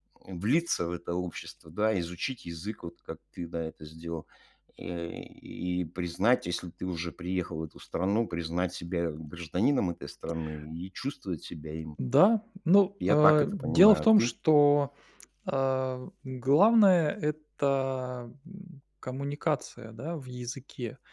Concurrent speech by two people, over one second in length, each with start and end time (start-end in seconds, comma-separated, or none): 13.1-14.3